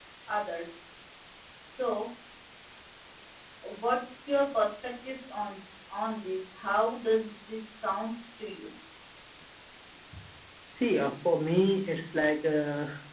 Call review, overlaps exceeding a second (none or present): none